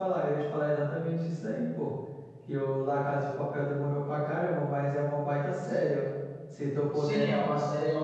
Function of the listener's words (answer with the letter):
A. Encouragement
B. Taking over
B